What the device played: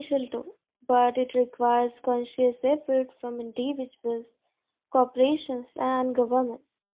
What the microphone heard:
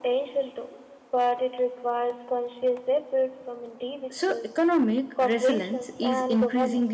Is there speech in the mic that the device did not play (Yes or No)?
Yes